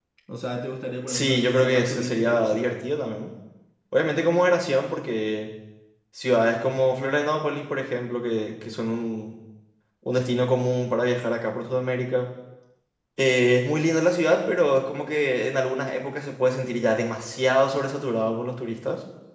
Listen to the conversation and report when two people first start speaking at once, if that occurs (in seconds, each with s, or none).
1.1 s